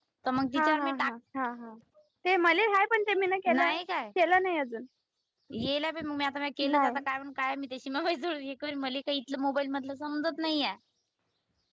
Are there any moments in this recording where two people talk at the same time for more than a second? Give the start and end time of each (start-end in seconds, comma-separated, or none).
none